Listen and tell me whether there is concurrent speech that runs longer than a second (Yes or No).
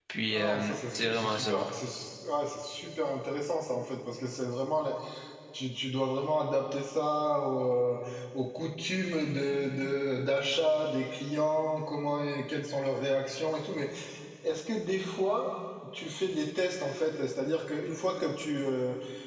Yes